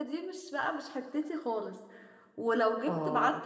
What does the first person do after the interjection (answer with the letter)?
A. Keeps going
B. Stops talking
A